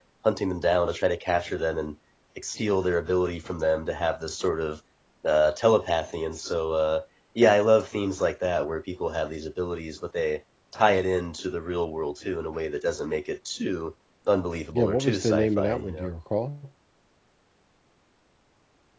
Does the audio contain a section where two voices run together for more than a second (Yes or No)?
Yes